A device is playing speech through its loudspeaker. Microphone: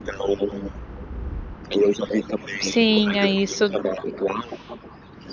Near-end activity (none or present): present